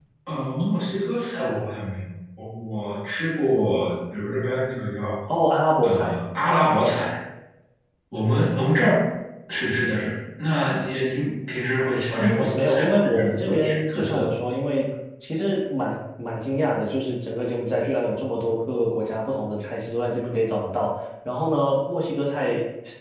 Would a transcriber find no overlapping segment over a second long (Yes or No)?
No